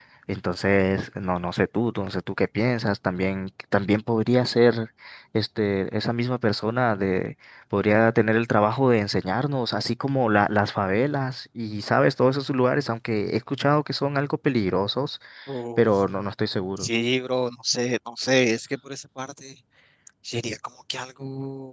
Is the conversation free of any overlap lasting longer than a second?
Yes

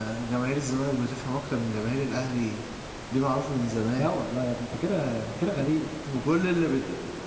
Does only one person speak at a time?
Yes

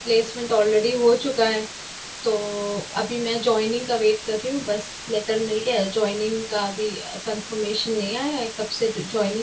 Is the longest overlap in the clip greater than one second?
No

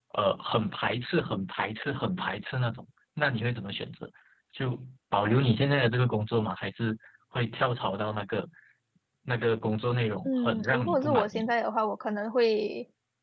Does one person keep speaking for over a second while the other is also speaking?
Yes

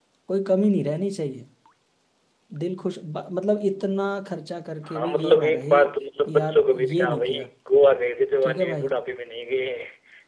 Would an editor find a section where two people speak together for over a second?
Yes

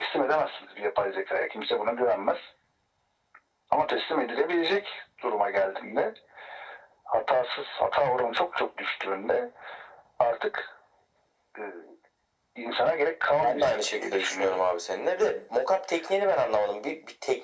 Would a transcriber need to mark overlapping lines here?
Yes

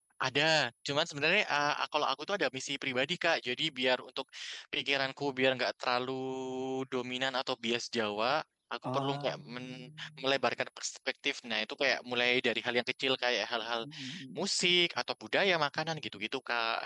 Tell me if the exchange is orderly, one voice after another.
No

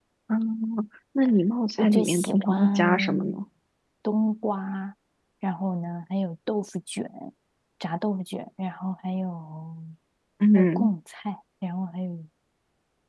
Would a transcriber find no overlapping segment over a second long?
No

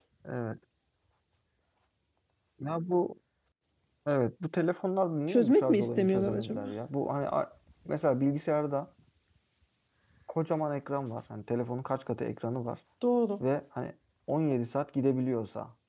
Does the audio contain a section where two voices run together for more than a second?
Yes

